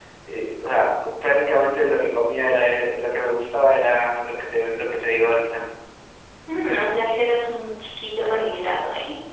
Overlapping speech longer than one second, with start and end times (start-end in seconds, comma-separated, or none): none